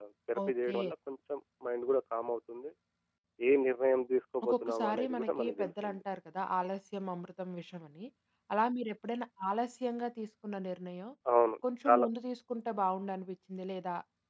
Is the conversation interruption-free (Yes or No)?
No